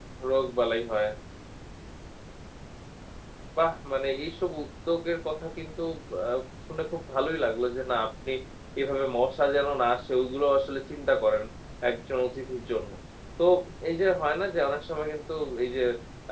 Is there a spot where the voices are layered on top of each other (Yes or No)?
No